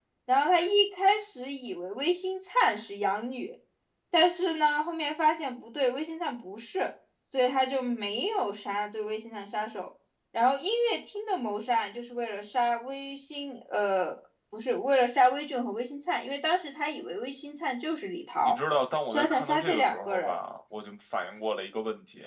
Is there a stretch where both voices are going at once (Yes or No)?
Yes